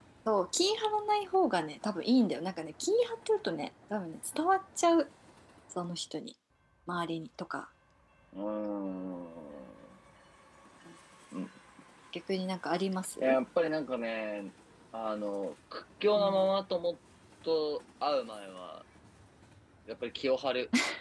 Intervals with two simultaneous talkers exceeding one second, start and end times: none

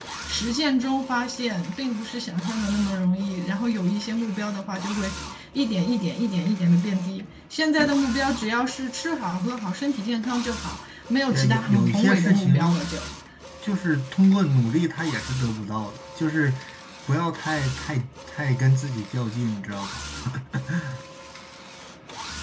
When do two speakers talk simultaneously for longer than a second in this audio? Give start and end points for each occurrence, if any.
11.3-12.8

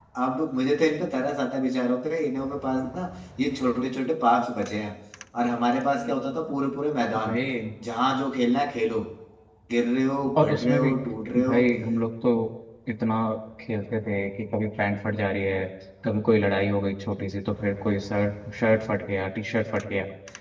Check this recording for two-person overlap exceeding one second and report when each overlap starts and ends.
none

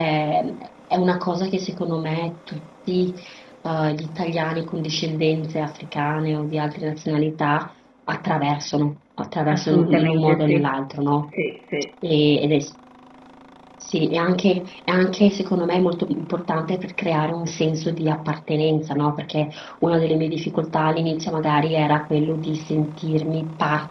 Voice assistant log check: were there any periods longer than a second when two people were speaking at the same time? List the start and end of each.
9.5-10.7

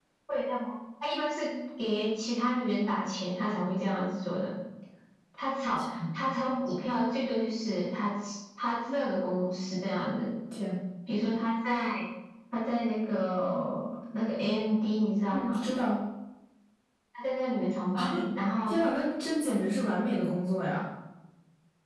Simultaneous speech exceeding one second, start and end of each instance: none

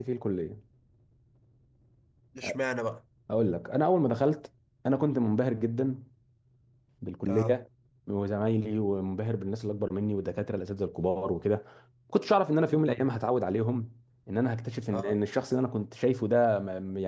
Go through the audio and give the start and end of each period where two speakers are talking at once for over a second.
none

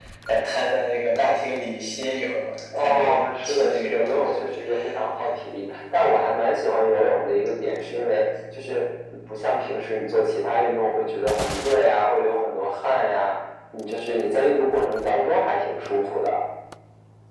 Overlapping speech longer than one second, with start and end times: 2.8-4.4

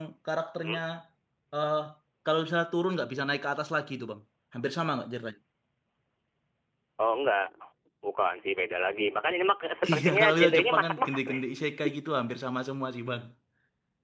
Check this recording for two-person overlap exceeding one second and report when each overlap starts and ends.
9.9-11.4

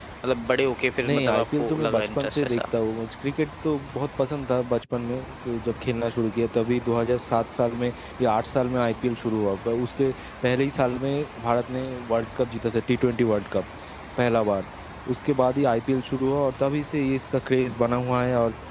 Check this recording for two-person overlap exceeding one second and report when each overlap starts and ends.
1.0-2.6

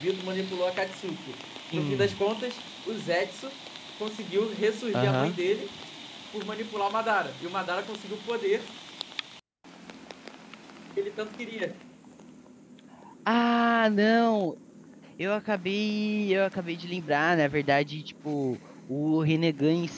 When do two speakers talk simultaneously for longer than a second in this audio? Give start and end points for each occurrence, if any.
none

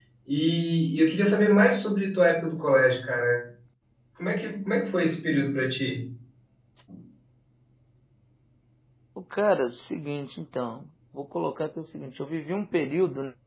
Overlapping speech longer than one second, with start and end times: none

